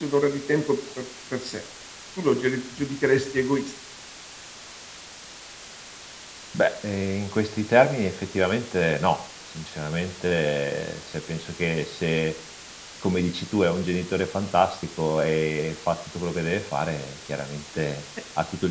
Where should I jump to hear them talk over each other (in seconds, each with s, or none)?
none